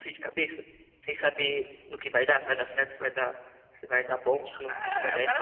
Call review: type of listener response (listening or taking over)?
taking over